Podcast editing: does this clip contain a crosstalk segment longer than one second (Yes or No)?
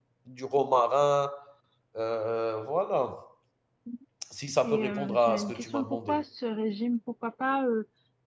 Yes